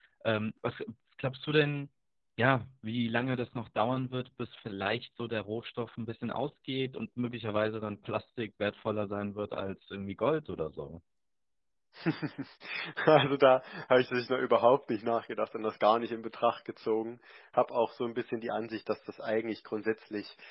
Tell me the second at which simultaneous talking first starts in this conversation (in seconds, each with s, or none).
none